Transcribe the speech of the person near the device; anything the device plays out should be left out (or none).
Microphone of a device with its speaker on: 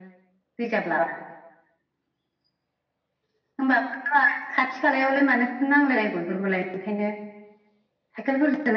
none